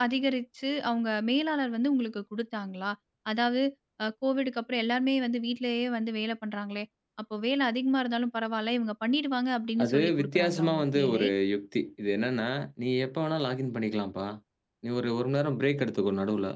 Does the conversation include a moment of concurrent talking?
Yes, from 9.8 s

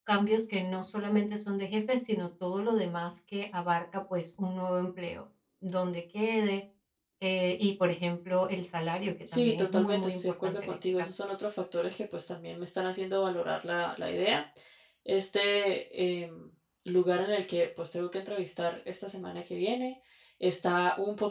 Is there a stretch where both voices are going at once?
Yes, from 9.3 s

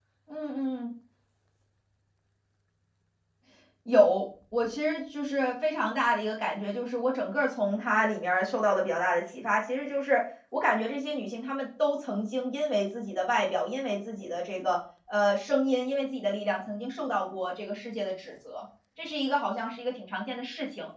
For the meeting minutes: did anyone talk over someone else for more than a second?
No

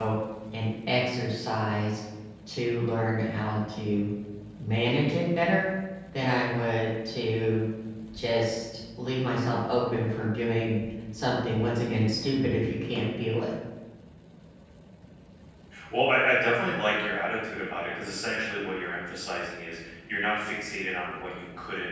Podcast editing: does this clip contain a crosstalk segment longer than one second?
No

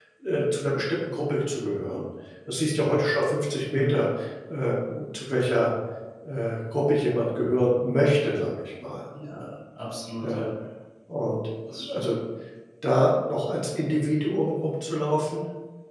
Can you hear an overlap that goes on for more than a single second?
No

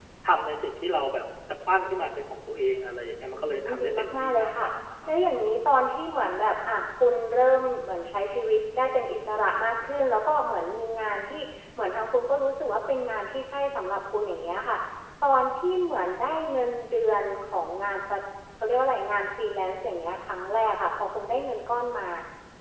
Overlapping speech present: Yes, from 3.3 s

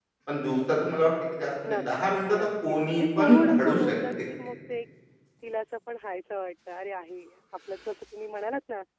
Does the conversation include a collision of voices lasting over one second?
Yes, from 1.6 s

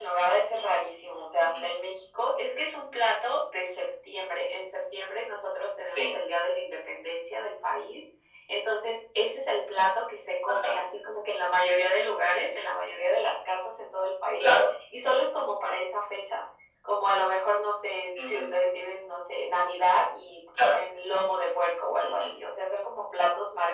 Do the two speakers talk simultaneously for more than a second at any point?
No

